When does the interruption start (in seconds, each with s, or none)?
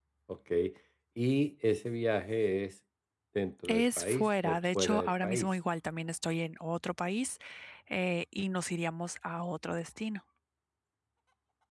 3.7 s